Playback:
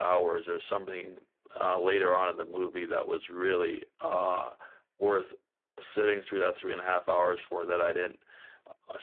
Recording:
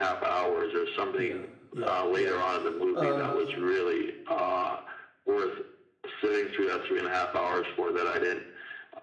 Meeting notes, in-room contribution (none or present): present